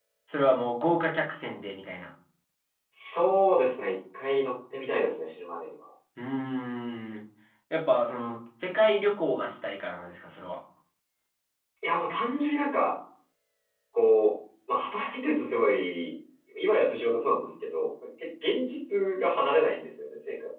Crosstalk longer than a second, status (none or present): none